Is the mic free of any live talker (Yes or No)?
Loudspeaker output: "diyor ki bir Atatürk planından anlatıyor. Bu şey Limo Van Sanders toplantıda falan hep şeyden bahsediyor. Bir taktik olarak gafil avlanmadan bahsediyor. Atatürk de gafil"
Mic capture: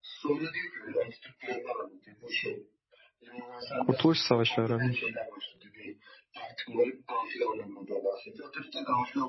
No